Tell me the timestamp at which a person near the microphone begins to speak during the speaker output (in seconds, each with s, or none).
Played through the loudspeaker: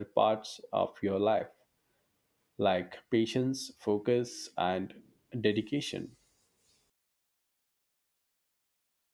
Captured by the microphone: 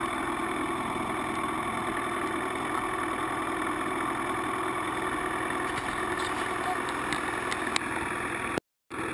none